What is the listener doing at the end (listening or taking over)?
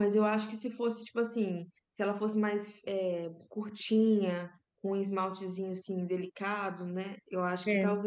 listening